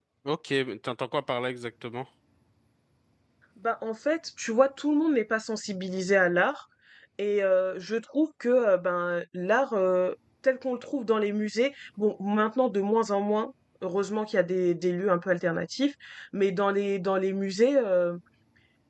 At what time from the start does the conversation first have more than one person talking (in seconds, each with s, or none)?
none